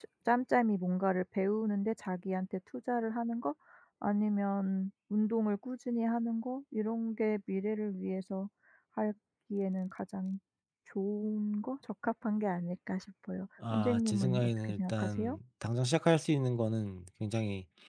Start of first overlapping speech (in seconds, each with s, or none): 13.6 s